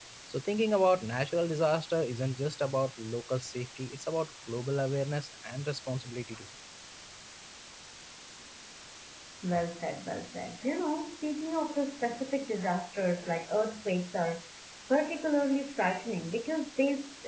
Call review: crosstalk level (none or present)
none